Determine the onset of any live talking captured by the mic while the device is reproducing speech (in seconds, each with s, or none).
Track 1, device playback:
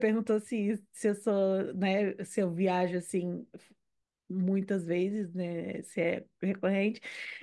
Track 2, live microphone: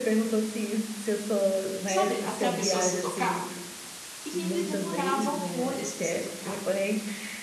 1.9 s